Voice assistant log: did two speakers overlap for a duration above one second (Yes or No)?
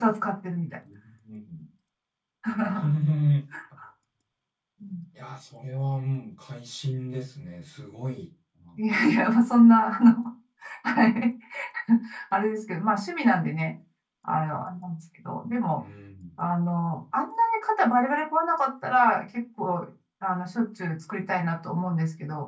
No